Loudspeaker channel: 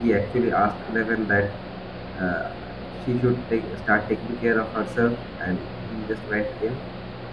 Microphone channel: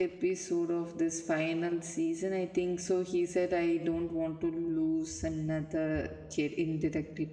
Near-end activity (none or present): present